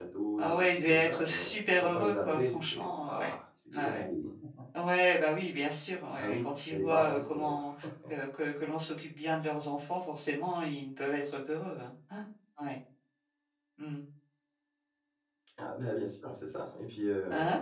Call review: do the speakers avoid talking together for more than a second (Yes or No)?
No